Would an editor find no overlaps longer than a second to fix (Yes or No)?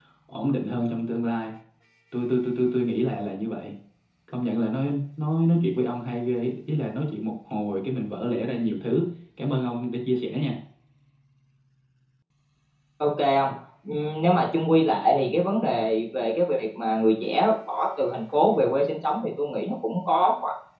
Yes